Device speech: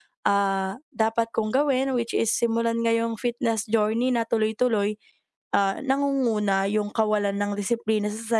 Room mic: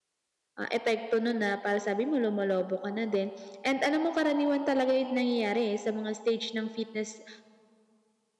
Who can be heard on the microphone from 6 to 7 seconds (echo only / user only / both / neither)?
user only